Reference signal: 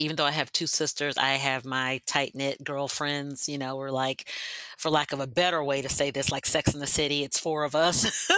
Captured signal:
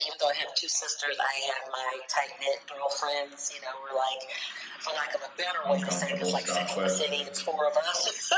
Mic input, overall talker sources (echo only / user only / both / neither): both